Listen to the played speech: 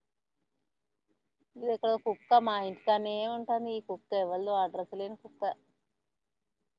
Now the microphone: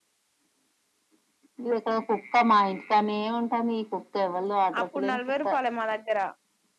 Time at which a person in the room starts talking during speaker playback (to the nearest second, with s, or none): 5 s